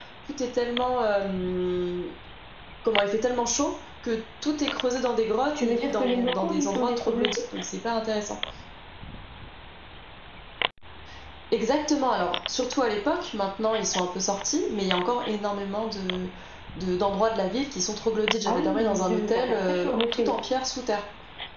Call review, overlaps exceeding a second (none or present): present